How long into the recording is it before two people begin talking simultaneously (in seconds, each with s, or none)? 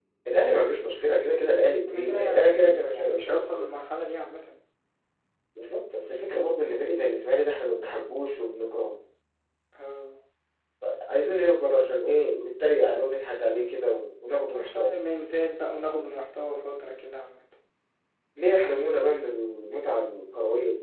1.9 s